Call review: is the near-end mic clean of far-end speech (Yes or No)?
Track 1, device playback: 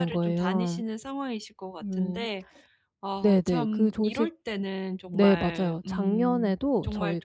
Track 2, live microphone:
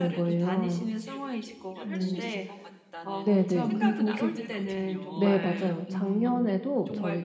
No